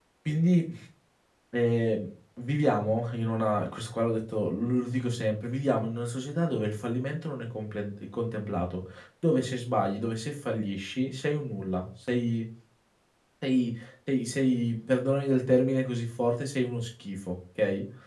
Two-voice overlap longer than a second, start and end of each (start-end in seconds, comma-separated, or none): none